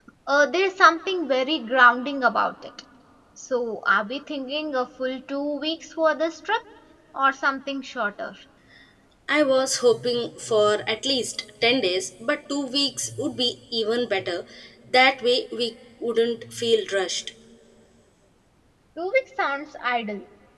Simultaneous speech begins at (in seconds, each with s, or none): none